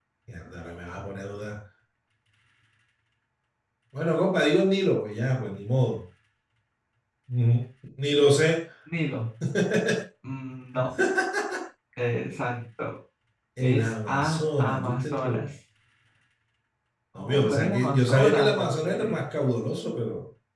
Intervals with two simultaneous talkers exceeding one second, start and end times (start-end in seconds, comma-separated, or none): 13.6-15.5, 17.1-19.2